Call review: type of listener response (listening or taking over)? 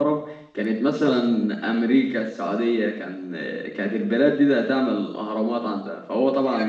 taking over